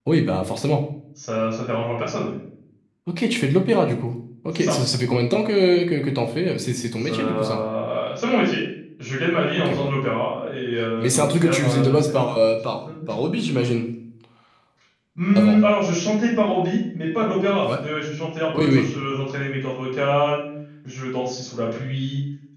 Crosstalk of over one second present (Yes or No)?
Yes